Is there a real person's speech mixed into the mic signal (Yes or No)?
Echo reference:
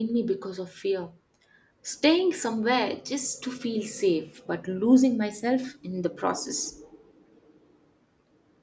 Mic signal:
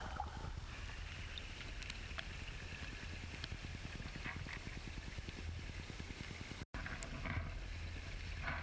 No